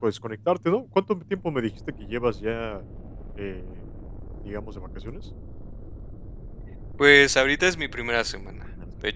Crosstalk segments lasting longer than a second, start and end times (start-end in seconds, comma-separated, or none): none